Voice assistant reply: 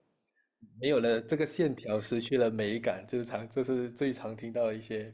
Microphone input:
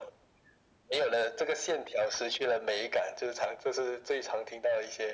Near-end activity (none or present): none